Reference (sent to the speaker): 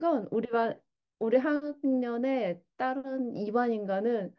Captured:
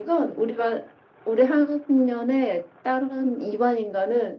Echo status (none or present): present